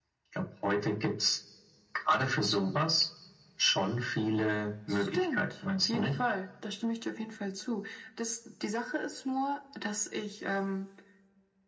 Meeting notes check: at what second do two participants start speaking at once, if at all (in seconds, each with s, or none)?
4.9 s